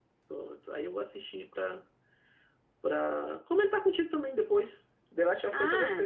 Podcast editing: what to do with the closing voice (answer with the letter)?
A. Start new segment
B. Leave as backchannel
A